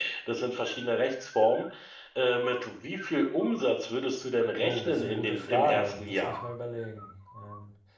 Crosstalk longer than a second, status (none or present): present